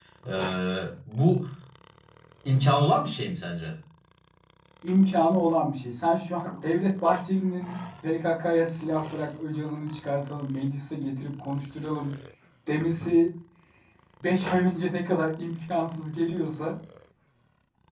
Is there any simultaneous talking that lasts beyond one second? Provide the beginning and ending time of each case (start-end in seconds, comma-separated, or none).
none